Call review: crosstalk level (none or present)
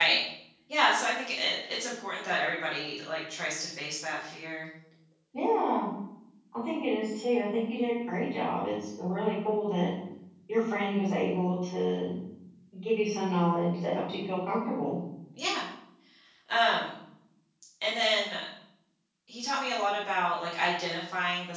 none